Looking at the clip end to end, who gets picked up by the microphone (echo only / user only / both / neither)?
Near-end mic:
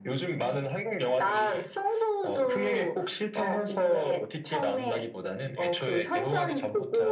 echo only